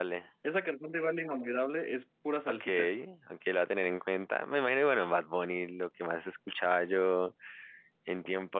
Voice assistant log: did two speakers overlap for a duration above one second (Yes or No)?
No